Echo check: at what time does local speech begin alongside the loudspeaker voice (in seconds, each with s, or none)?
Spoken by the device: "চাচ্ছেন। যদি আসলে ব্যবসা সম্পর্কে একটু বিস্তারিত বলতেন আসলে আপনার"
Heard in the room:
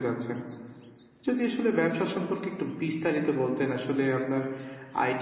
none